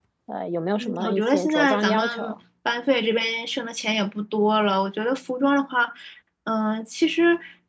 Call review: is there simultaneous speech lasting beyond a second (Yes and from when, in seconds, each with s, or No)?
Yes, from 0.8 s